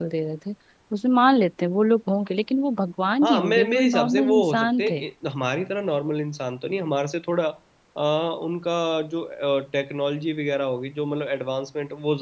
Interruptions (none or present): present